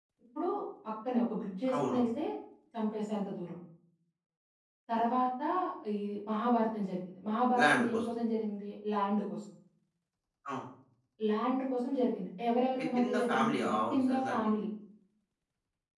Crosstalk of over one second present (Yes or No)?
Yes